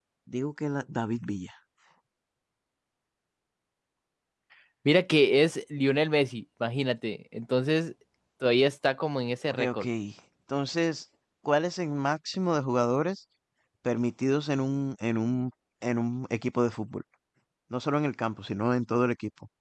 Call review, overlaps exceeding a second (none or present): none